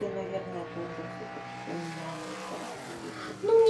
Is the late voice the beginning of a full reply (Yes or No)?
Yes